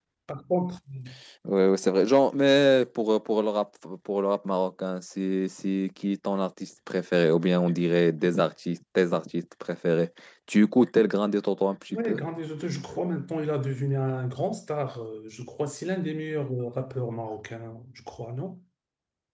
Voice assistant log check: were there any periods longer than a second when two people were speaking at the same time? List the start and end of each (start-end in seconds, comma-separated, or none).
none